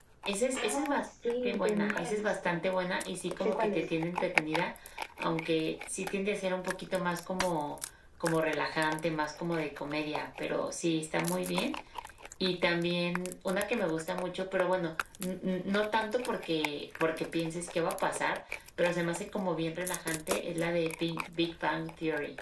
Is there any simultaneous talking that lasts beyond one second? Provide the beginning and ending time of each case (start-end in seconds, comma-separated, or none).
0.6-2.6